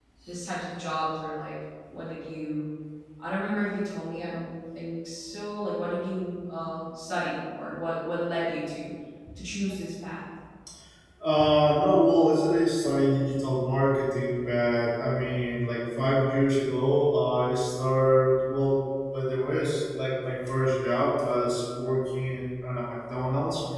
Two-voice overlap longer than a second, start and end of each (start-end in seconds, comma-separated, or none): none